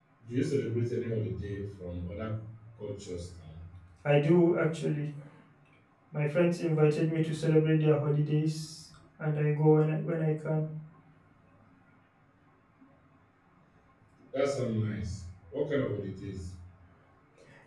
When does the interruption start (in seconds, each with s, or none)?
none